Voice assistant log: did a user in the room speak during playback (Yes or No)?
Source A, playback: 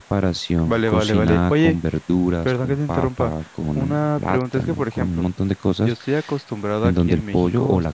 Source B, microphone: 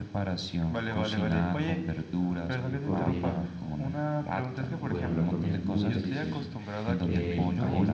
Yes